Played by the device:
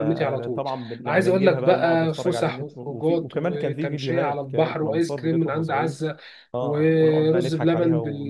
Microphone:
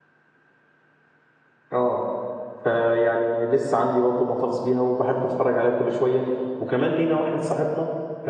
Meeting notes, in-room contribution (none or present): present